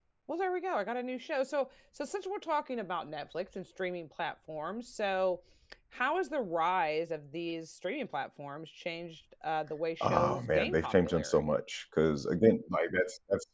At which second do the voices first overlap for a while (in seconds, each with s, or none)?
10.0 s